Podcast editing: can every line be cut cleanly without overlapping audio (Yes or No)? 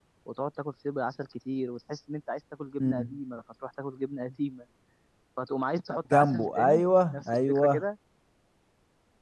No